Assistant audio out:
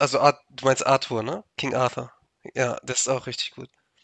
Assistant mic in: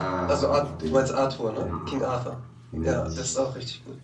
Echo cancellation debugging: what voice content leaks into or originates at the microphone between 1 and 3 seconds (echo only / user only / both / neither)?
both